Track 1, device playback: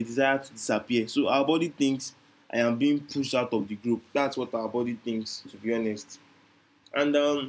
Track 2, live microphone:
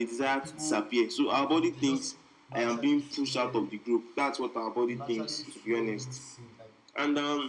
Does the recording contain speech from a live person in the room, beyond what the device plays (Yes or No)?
Yes